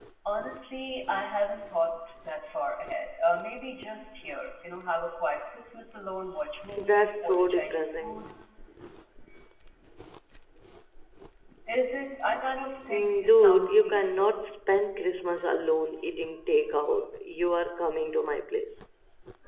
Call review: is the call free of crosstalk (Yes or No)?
No